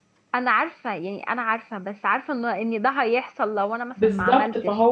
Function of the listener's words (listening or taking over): taking over